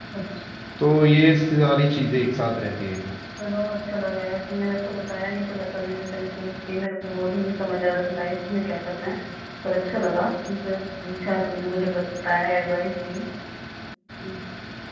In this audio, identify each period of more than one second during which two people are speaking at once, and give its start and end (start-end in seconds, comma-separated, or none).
none